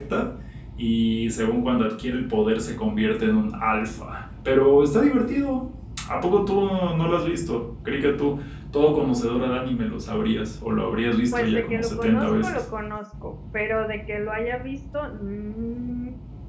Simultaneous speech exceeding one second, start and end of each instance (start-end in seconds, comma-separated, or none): 11.3-12.6